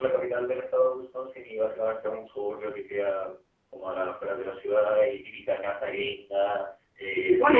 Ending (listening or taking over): taking over